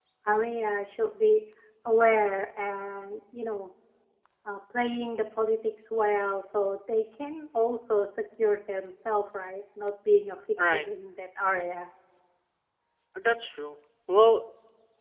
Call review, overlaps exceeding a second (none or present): none